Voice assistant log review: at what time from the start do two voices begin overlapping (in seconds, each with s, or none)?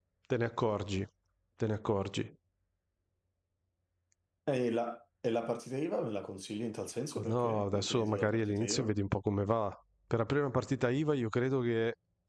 7.2 s